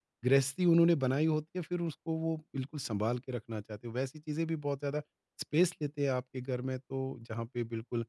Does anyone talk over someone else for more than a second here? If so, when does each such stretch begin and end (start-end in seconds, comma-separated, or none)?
none